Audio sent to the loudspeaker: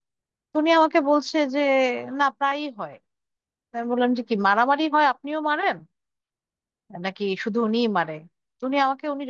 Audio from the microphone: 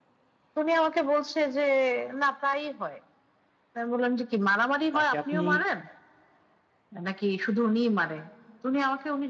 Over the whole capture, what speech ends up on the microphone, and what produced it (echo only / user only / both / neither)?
both